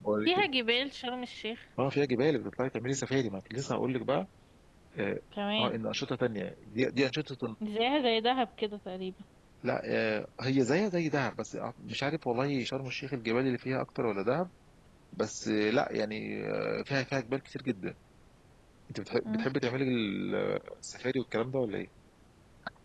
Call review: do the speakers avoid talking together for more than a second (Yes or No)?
Yes